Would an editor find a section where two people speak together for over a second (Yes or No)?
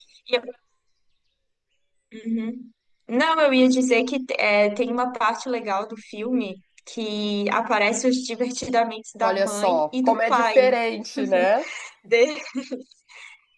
Yes